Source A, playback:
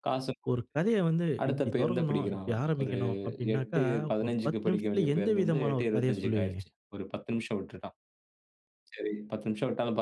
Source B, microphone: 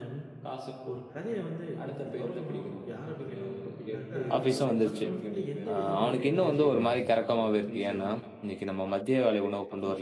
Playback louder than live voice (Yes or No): No